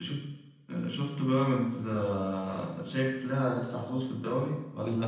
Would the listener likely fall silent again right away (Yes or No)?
No